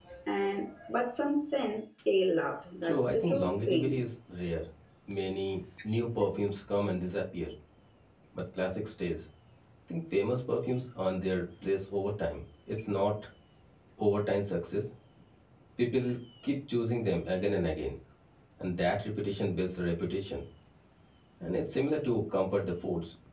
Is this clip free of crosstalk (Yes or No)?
No